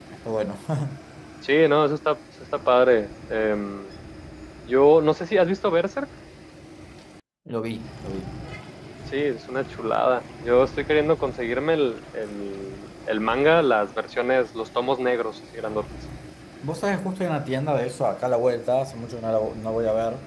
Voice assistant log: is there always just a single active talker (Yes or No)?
Yes